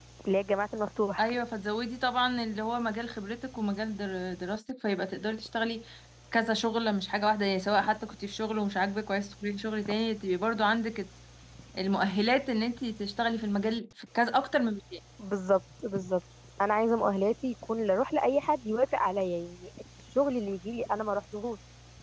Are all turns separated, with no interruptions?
Yes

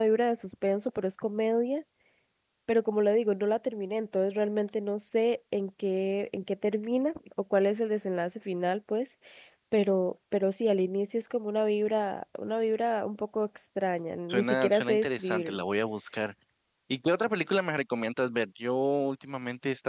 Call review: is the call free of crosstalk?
No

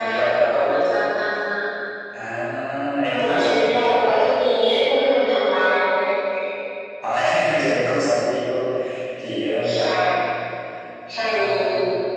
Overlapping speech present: Yes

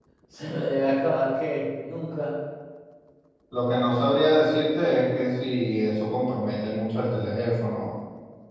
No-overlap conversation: Yes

